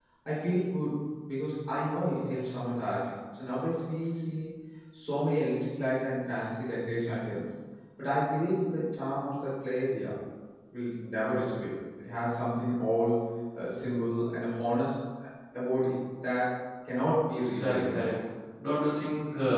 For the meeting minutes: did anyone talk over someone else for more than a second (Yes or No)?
No